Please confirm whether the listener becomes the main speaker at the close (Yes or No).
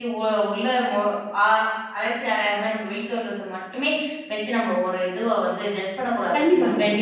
Yes